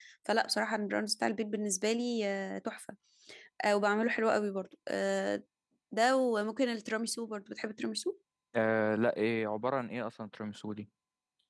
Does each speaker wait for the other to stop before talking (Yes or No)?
Yes